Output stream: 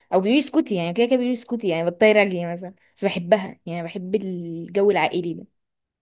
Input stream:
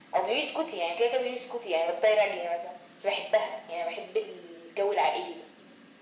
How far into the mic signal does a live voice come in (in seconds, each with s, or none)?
none